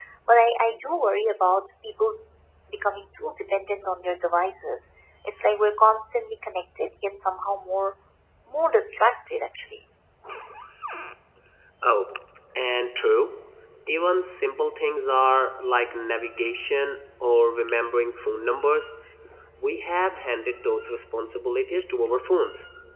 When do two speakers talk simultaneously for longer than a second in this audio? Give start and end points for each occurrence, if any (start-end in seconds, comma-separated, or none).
none